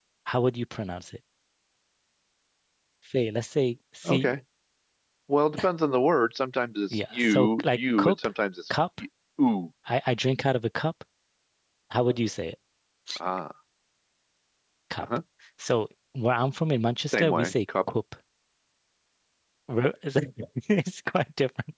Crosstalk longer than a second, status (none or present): present